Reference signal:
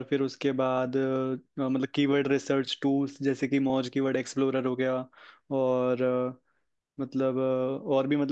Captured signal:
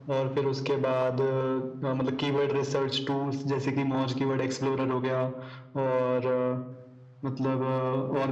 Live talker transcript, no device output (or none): none